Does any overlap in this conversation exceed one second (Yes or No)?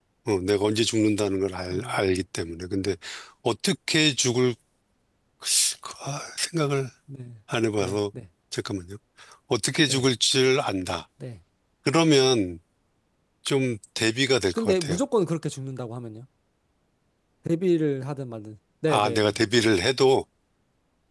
No